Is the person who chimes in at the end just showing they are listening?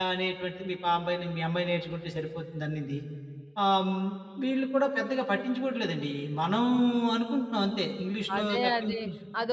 No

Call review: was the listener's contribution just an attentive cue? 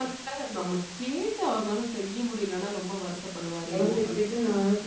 No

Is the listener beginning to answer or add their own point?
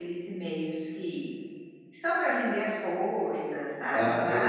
Yes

